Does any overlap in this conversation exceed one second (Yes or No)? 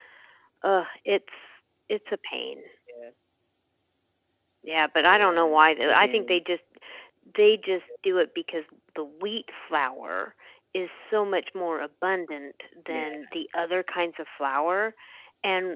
Yes